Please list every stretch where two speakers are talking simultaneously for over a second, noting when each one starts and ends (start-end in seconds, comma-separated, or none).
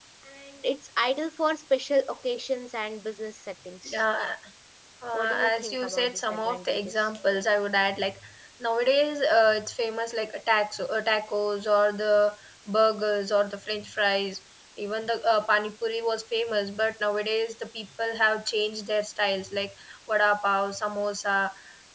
5.1-7.4